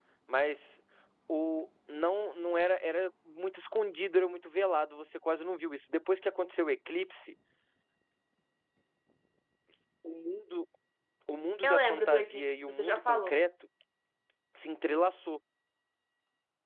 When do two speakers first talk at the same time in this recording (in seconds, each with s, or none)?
11.6 s